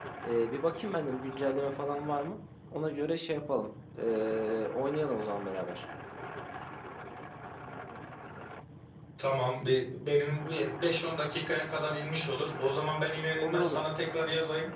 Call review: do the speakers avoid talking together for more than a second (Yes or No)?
Yes